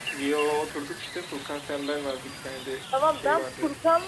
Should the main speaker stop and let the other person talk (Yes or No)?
Yes